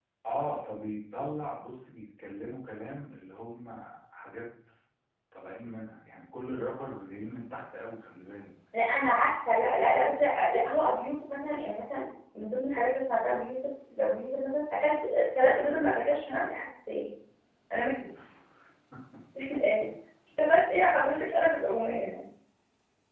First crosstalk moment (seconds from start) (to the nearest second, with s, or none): none